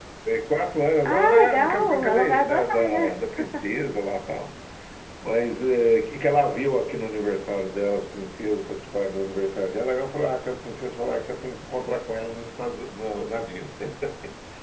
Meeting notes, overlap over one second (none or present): present